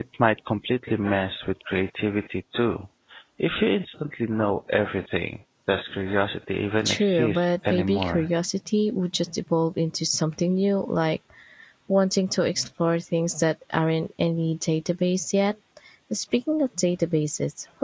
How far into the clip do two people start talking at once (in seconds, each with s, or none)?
6.8 s